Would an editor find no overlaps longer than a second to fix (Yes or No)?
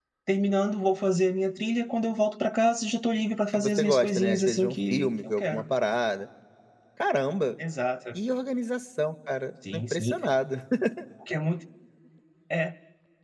No